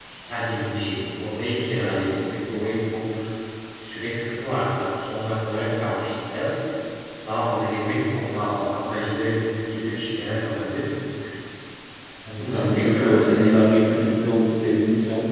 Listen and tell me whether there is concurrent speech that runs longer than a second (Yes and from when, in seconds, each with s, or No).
Yes, from 12.4 s